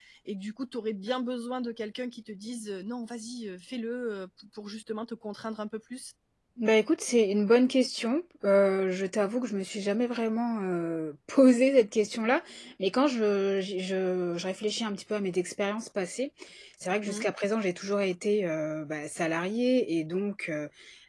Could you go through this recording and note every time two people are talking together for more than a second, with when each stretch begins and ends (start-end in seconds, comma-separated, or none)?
none